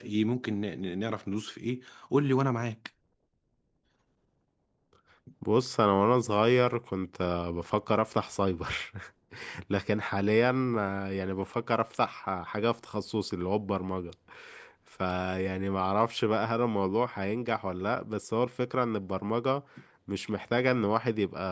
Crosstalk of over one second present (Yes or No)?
No